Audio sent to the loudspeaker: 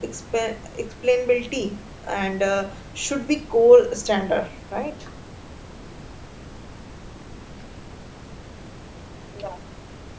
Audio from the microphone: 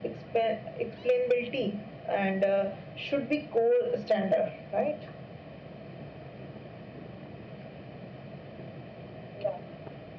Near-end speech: none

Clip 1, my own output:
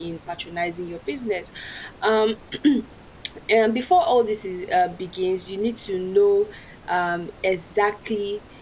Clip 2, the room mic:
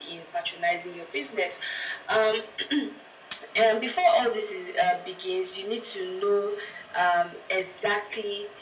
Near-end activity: none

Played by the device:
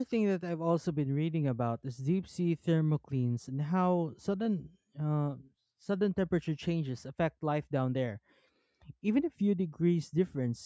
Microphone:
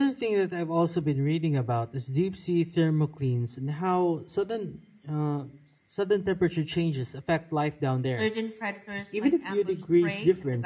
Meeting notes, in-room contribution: present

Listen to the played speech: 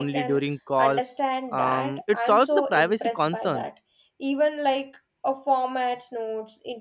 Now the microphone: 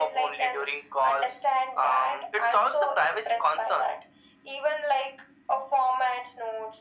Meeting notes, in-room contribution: none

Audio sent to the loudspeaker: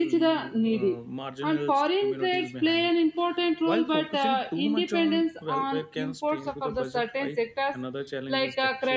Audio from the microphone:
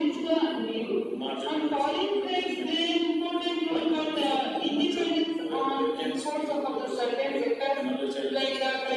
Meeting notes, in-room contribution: none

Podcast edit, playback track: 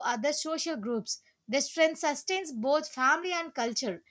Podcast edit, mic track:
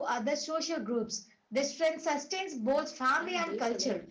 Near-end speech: present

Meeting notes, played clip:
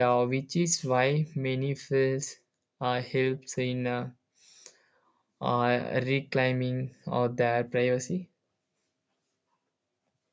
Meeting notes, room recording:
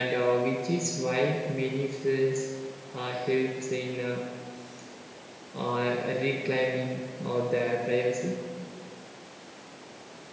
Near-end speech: none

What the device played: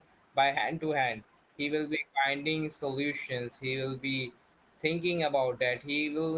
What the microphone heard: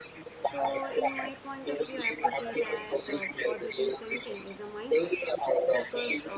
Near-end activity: present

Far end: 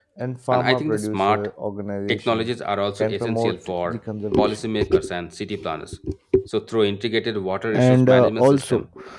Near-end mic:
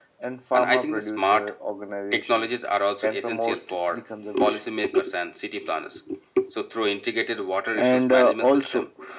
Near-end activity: none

